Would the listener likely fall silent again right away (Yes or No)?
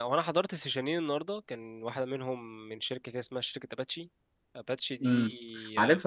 No